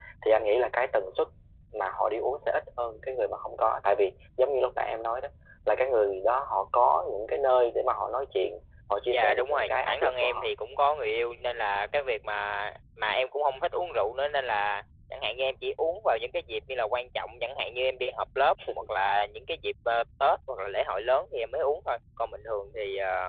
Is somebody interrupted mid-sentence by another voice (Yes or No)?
Yes